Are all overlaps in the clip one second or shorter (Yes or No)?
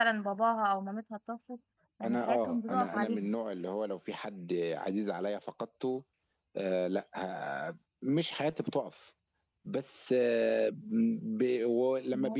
No